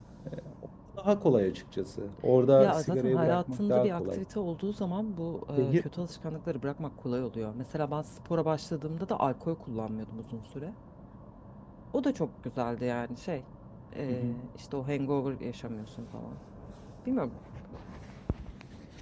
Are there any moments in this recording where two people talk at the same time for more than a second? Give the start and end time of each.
2.6-4.2

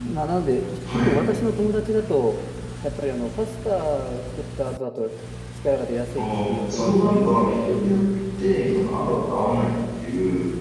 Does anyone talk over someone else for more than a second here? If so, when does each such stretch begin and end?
6.2-7.7

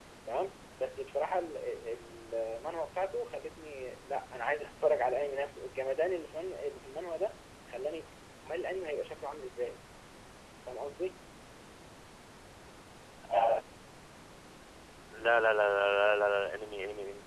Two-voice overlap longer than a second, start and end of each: none

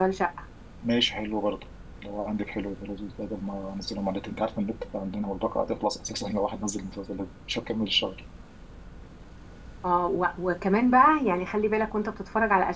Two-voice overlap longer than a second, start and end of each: none

